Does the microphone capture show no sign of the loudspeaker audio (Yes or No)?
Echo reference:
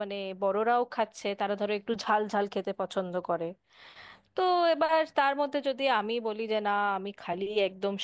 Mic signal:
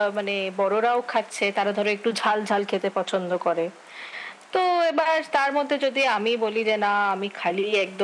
No